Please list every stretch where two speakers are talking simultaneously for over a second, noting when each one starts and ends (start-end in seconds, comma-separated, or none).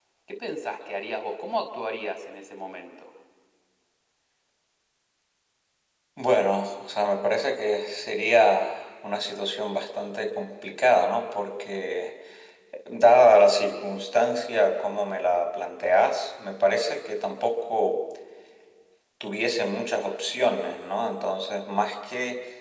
none